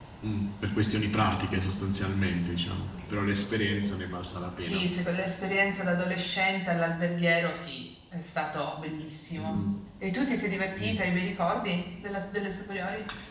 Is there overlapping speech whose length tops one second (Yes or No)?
No